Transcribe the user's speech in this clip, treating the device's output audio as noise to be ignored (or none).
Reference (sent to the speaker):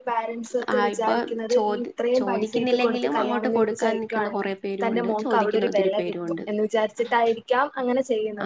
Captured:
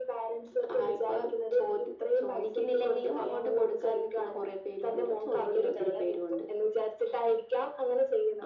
none